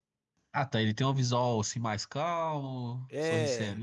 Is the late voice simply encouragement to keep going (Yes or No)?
No